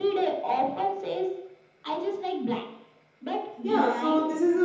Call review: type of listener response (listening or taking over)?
taking over